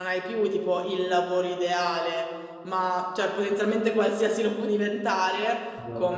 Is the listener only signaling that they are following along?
Yes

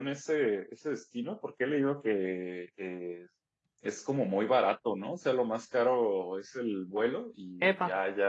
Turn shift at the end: No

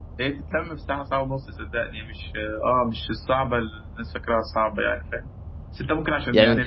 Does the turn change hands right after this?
No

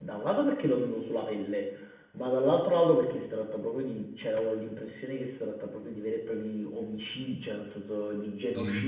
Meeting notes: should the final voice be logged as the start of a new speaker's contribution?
No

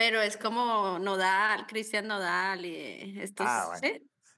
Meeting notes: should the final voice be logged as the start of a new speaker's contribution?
Yes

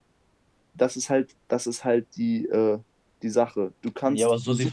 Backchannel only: No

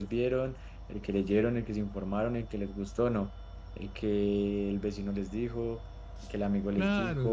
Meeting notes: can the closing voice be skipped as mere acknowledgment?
No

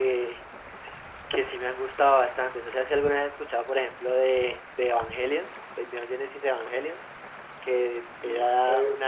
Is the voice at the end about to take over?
No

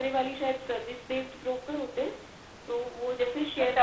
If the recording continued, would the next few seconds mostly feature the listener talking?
Yes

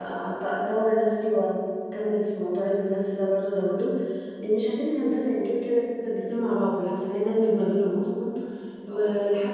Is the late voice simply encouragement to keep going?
Yes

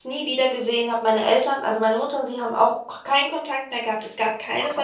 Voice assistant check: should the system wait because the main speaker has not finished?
No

